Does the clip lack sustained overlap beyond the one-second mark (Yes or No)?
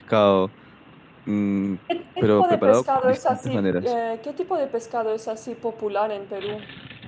No